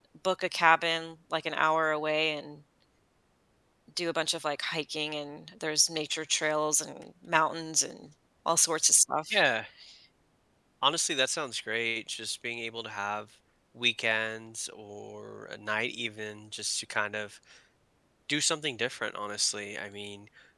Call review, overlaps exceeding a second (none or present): none